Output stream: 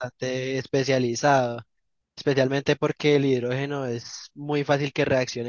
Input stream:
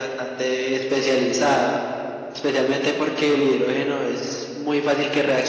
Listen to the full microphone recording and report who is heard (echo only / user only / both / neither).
echo only